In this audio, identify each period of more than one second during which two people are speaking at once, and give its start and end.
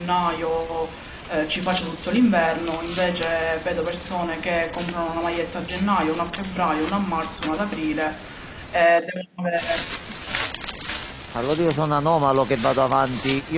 none

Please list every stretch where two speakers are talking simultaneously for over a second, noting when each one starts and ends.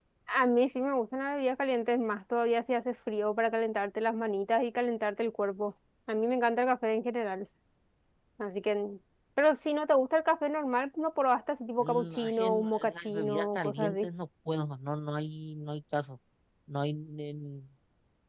11.8-14.1

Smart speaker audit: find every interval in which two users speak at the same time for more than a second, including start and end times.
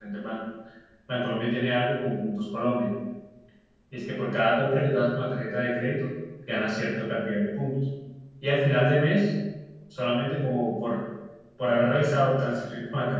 none

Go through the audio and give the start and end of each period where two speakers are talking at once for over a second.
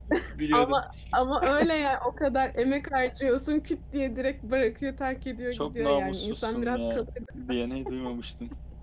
5.5-7.1

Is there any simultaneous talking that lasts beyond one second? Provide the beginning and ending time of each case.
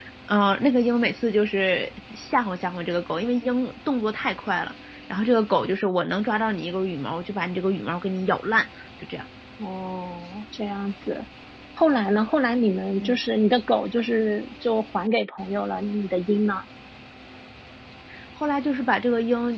none

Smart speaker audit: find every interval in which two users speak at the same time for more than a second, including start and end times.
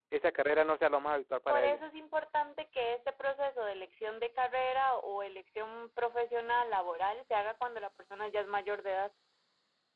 none

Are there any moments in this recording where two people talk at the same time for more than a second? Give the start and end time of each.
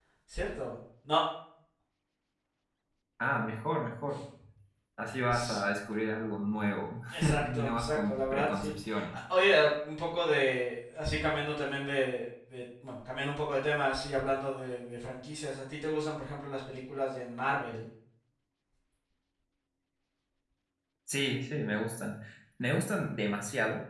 7.1-9.2

